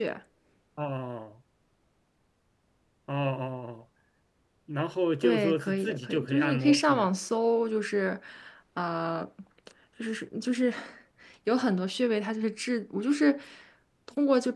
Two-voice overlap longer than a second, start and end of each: 5.2-7.1

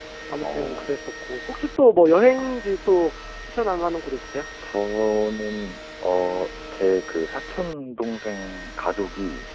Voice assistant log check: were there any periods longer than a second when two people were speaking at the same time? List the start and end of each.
none

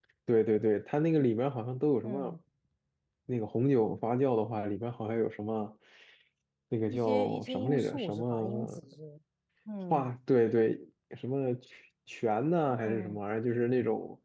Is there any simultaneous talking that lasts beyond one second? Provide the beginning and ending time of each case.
6.9-8.8

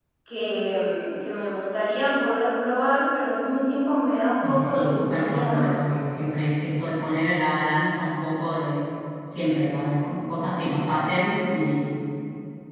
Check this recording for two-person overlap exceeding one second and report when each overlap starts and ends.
4.4-5.7

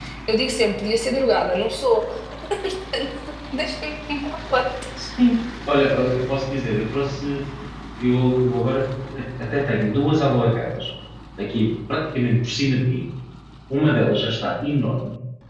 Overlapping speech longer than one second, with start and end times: none

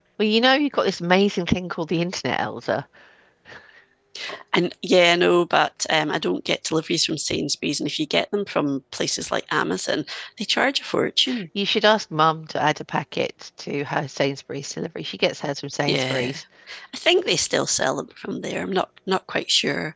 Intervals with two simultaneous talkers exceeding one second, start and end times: none

